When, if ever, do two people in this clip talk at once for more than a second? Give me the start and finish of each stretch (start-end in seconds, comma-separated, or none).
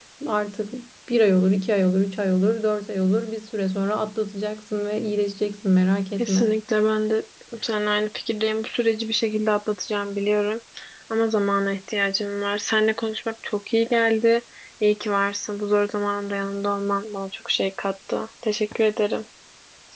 none